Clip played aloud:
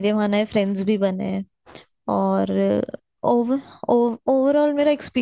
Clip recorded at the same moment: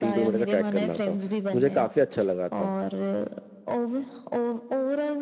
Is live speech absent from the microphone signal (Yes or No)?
No